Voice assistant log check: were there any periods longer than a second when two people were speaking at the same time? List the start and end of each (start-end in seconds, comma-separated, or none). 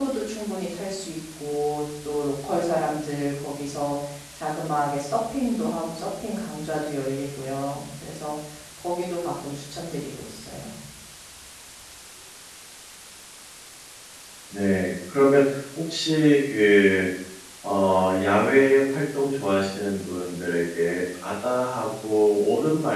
none